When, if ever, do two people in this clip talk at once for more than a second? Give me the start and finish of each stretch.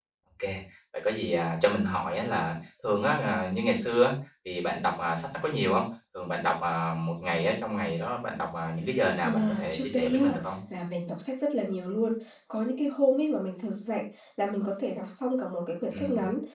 9.2-10.5

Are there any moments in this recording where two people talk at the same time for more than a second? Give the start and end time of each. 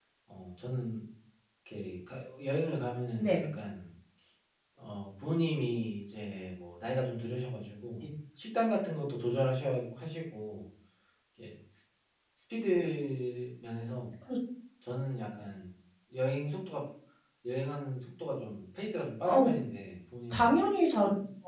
none

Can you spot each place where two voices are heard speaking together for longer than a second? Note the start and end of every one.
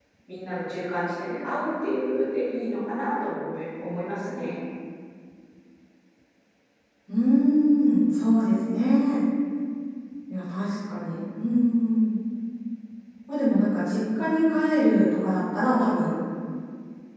none

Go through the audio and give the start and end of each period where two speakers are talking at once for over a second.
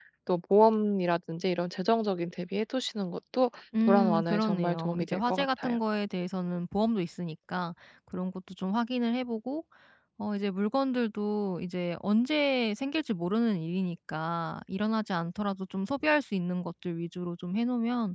3.9-5.8

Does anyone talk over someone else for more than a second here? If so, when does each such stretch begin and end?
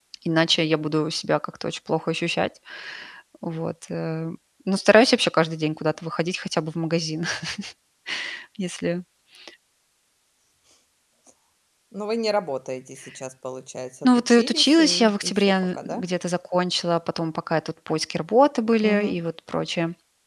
14.0-16.0

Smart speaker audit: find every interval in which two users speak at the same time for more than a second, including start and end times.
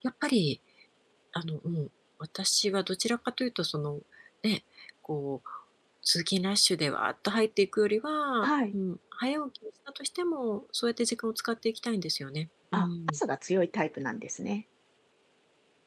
none

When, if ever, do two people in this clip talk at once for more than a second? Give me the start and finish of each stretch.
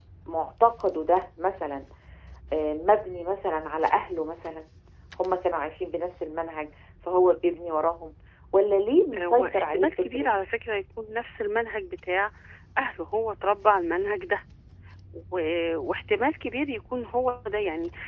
9.2-10.4

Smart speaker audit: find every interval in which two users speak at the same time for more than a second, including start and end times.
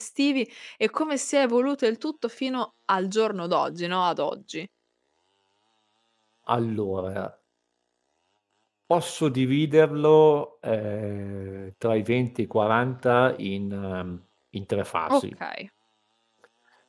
none

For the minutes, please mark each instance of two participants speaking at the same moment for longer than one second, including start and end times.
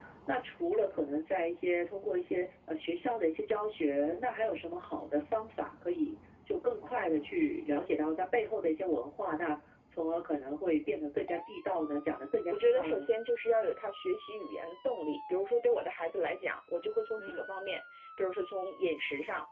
none

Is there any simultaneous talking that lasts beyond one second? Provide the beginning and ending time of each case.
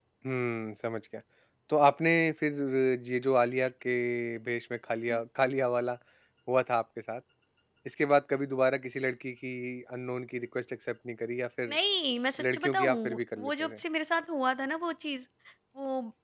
12.5-13.8

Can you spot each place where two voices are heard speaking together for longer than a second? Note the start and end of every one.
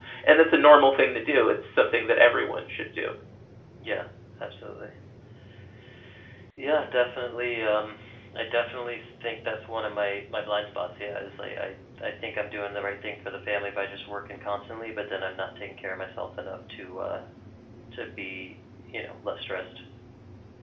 none

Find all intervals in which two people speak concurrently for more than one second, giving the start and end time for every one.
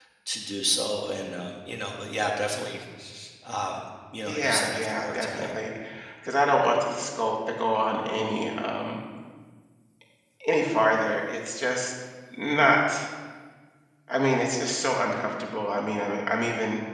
4.3-5.5

